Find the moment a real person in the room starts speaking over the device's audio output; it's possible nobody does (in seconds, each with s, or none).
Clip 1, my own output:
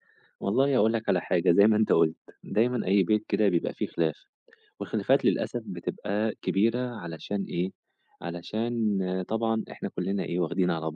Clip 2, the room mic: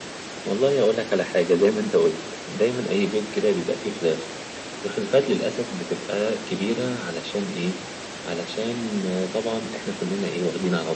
none